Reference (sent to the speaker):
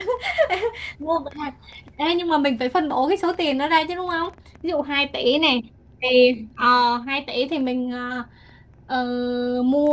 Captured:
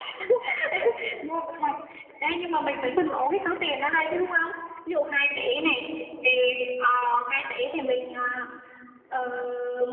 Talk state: echo only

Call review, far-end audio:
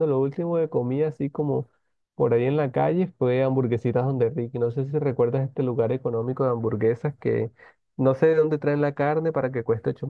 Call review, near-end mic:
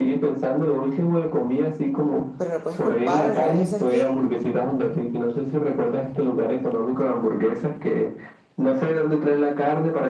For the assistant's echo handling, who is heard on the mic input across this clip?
both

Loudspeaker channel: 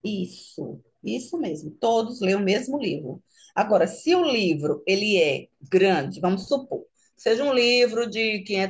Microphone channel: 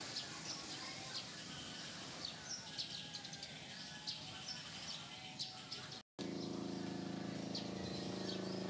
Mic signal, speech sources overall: neither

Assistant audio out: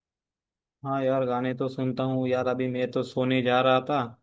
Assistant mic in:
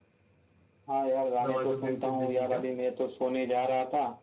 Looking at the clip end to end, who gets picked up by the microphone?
both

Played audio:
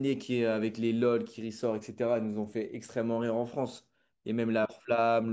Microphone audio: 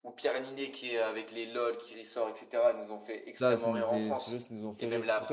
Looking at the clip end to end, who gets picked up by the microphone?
both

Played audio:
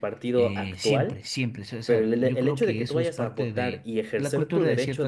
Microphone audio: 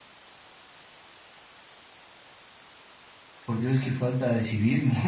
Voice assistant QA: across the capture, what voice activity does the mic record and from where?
user only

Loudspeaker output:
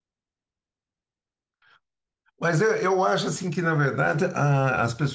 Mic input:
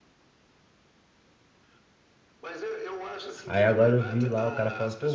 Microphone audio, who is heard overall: both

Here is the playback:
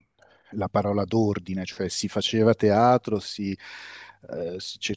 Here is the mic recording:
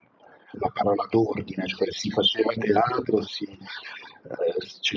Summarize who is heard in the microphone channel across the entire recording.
echo only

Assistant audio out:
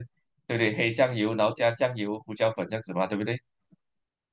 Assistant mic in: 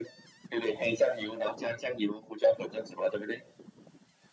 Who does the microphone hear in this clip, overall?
echo only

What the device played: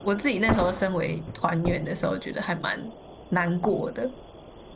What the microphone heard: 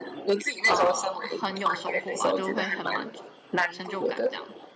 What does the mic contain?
both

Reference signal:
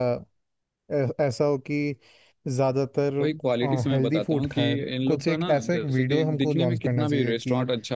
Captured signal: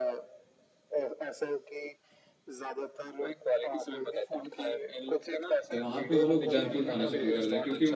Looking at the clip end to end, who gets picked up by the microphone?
both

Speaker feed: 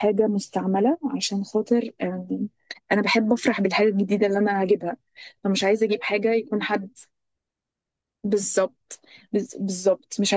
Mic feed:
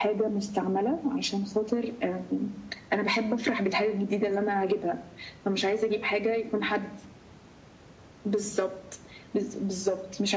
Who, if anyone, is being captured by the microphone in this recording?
echo only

